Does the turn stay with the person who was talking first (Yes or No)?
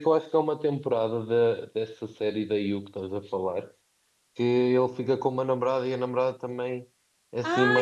No